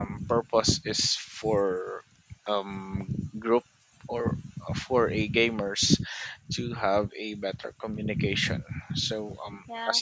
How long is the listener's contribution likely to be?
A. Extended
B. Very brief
B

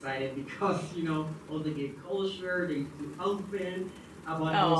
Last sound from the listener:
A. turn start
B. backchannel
B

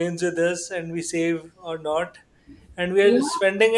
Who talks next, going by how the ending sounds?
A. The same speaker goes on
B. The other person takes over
A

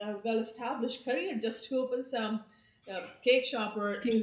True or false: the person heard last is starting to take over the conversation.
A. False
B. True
A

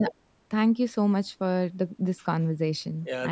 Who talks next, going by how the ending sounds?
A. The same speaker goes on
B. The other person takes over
B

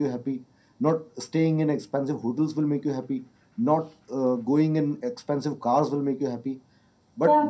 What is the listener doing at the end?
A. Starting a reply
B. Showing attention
B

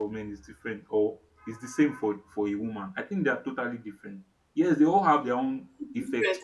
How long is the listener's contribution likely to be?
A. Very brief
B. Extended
B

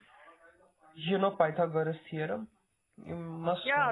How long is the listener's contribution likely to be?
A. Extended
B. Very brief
A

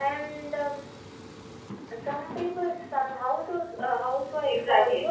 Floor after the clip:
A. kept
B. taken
B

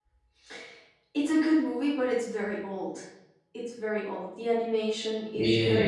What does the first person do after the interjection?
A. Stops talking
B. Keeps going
A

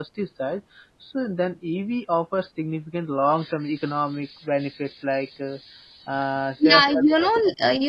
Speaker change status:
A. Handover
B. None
A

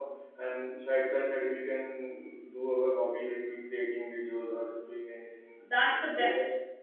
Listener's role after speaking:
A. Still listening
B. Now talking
B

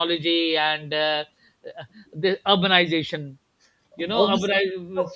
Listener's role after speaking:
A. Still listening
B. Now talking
A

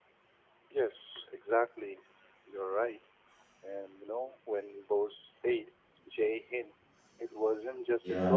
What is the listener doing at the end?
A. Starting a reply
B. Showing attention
B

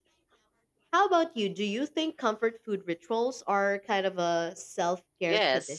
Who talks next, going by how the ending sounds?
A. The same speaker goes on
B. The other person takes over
B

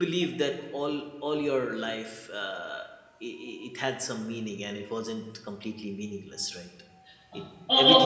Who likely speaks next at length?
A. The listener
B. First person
A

